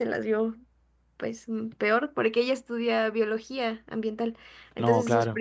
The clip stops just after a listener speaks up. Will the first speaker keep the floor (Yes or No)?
Yes